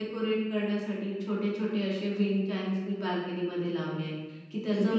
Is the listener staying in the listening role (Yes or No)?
Yes